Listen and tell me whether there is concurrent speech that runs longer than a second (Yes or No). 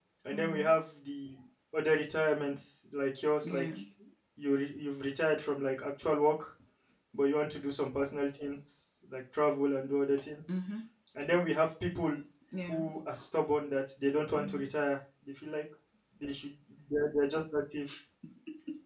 No